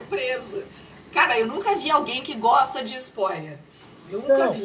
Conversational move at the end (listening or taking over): taking over